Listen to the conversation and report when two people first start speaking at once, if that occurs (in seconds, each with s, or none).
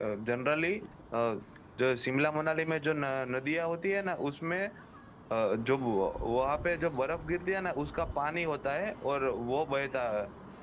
none